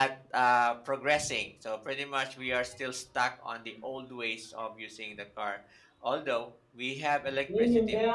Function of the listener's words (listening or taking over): taking over